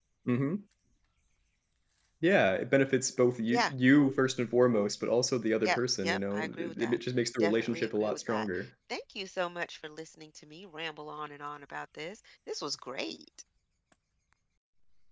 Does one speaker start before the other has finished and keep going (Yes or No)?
Yes